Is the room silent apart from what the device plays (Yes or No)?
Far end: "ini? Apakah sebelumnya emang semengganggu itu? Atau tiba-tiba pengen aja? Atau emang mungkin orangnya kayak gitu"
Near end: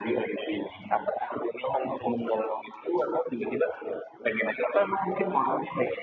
Yes